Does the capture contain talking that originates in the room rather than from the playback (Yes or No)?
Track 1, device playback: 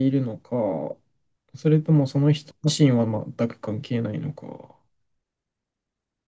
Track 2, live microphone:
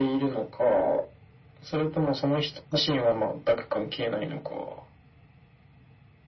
No